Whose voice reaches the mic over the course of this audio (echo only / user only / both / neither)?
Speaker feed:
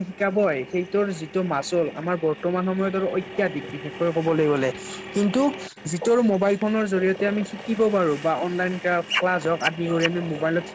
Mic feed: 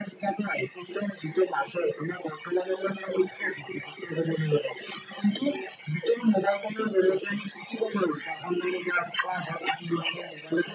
echo only